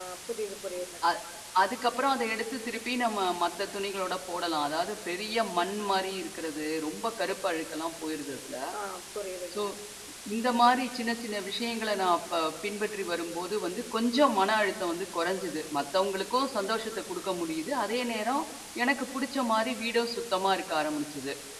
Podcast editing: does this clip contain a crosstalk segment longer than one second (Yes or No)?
No